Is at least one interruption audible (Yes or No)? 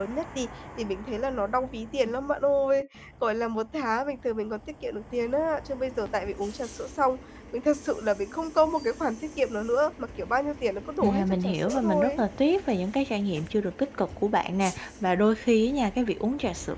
Yes